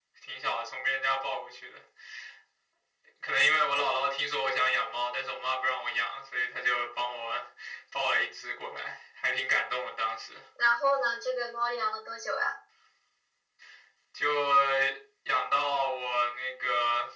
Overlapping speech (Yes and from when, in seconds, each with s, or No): No